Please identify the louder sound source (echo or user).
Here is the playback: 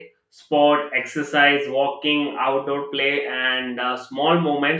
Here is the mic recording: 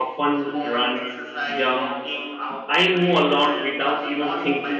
user